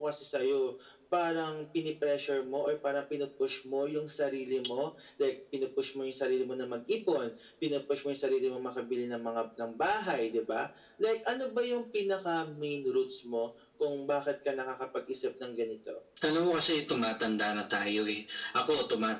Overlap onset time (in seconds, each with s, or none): none